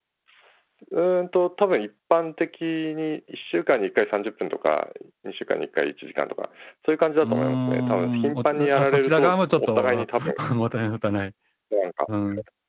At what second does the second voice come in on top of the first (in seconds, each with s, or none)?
7.2 s